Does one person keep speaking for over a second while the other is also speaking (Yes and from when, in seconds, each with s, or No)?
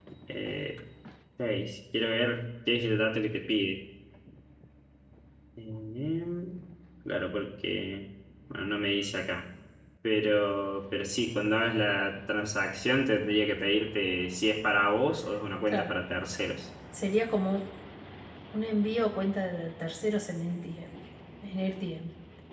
No